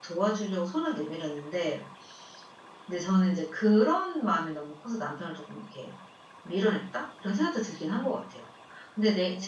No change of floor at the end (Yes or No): No